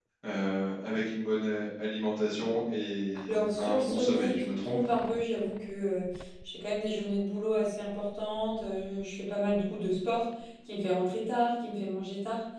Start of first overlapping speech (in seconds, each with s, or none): 3.3 s